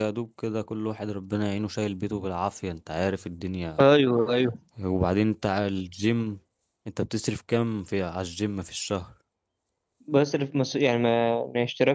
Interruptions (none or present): none